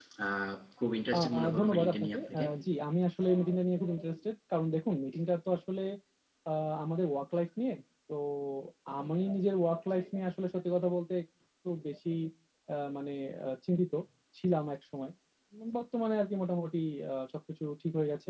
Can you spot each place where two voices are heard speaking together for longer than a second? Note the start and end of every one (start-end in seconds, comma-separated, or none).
1.1-2.4